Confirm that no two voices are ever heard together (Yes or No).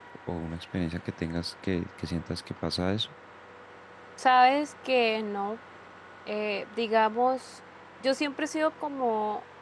Yes